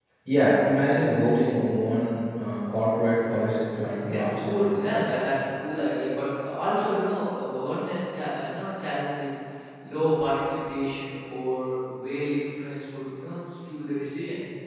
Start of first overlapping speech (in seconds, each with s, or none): 3.7 s